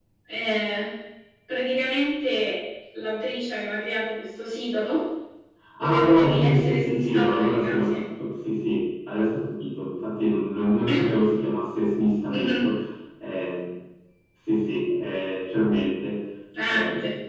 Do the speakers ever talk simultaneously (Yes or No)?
Yes